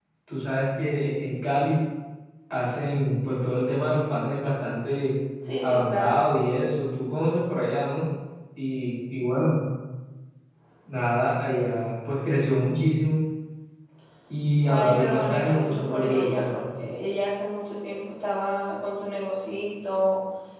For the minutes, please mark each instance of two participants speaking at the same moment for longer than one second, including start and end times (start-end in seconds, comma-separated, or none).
14.7-16.6